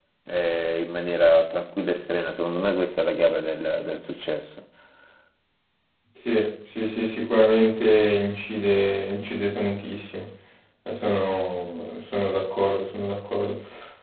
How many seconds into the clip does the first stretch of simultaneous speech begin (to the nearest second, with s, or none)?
none